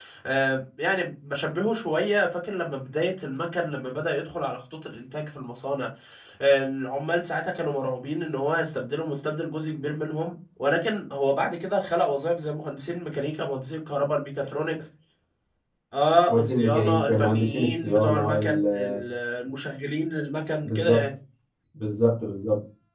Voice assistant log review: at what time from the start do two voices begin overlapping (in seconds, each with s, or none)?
16.3 s